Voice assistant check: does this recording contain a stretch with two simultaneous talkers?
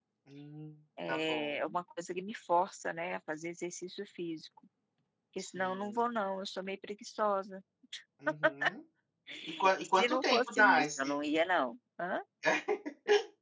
Yes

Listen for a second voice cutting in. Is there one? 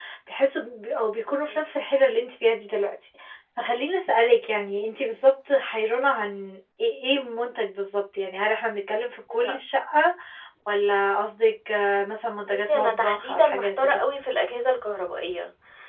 Yes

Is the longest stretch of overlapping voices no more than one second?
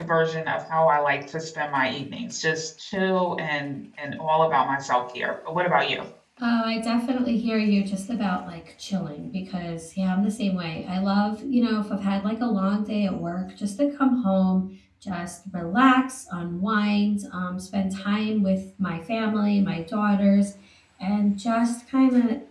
Yes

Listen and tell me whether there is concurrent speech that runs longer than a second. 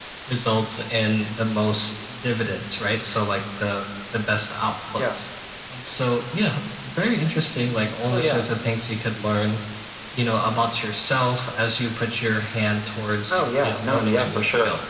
Yes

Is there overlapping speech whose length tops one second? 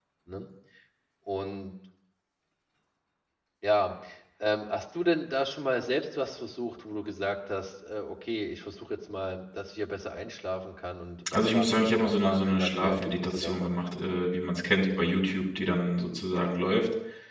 Yes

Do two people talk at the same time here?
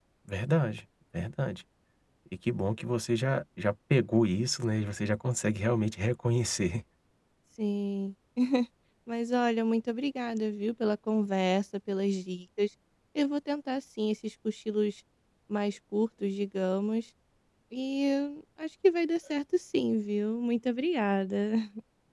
No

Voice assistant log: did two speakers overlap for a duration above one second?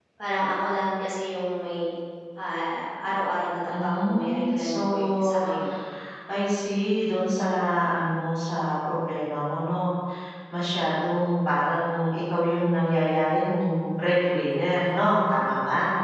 Yes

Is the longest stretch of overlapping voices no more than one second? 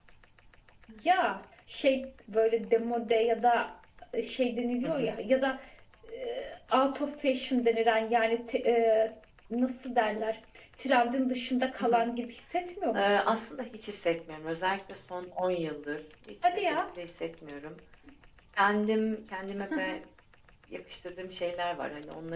Yes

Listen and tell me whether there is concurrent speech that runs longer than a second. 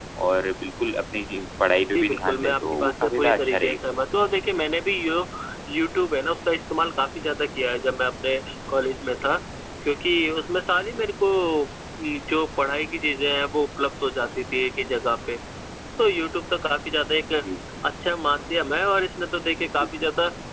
Yes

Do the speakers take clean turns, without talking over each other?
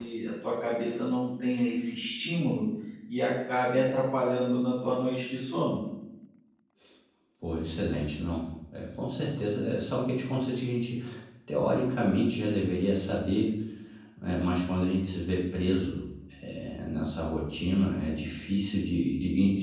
Yes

